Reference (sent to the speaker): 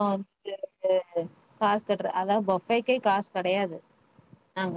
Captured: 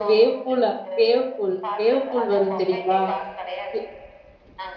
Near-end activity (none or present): present